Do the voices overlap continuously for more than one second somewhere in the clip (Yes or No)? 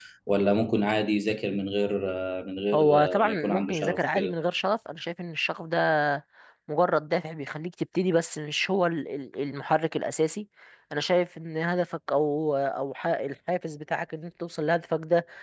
Yes